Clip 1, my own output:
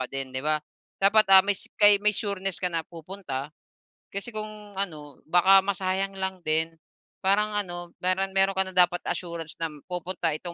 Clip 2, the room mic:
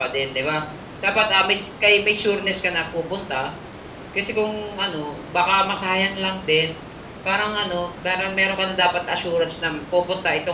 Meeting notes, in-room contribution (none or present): none